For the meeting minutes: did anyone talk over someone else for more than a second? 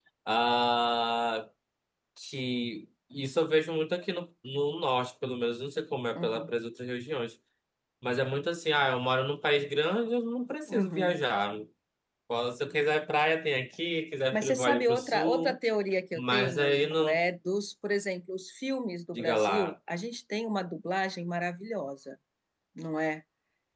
Yes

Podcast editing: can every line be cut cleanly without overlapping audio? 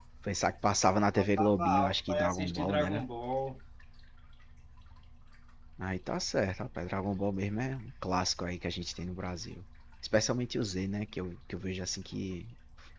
No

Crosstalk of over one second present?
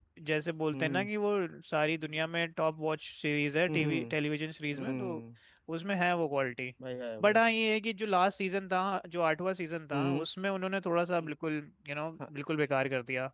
No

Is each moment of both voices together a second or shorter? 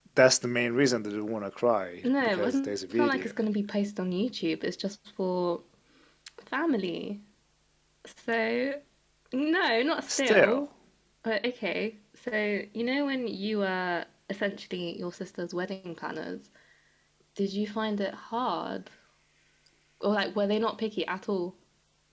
No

